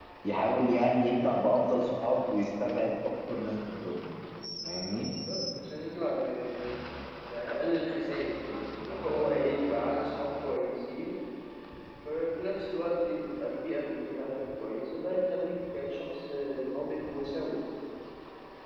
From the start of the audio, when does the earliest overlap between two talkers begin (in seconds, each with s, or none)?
none